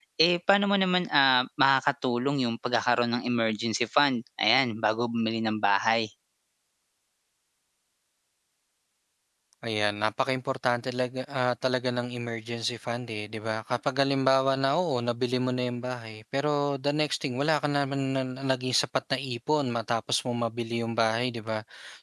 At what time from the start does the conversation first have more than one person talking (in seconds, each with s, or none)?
none